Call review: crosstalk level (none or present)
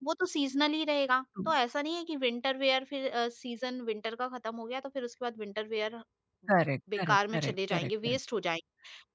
present